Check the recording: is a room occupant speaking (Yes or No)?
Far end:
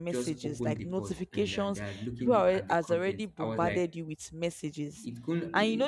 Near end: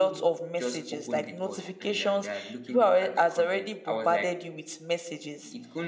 No